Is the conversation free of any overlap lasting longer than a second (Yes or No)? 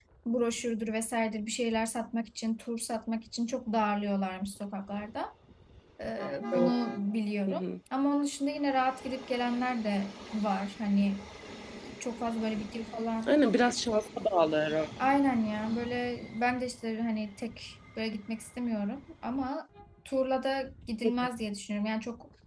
Yes